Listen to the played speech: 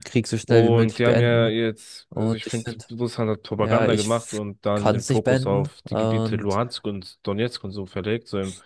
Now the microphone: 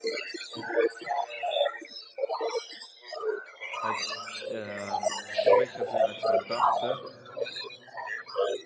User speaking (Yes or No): Yes